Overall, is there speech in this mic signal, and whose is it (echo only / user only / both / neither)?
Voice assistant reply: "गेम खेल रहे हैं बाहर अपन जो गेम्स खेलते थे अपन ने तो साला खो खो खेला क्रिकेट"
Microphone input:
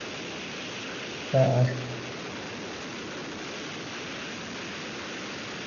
user only